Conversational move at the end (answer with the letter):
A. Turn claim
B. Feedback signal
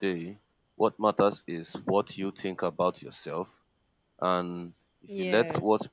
B